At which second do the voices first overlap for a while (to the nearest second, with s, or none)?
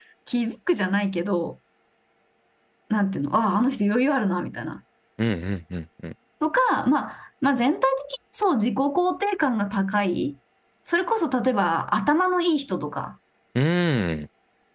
none